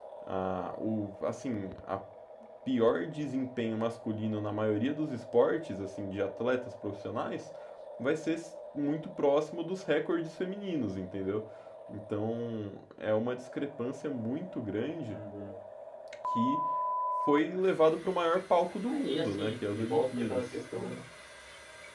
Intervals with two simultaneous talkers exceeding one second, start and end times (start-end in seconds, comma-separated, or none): 18.9-20.5